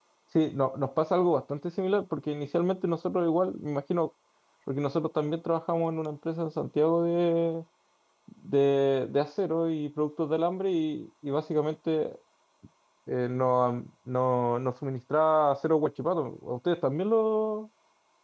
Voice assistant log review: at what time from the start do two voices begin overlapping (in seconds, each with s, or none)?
none